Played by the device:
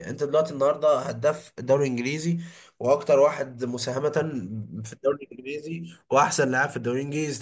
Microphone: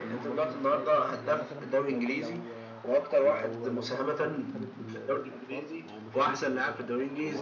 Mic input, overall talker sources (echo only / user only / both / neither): both